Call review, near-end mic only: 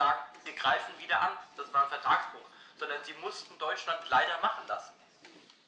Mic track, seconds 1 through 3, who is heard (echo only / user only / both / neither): echo only